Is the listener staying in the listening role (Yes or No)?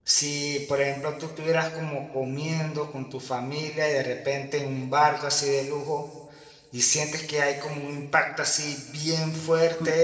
Yes